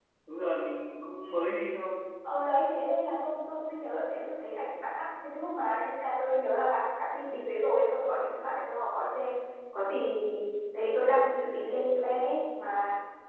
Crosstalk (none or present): none